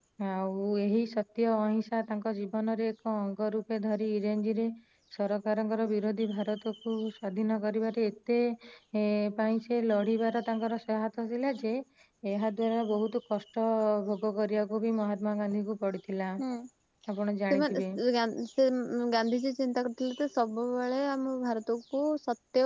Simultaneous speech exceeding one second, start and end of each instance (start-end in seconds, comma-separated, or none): none